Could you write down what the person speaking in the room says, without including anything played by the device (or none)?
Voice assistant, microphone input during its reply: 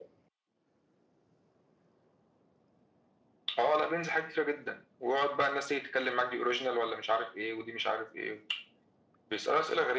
none